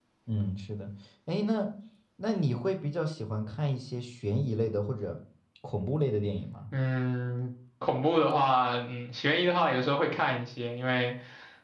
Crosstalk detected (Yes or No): No